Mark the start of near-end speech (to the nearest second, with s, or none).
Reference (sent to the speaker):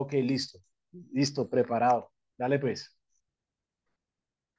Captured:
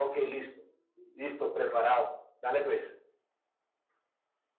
none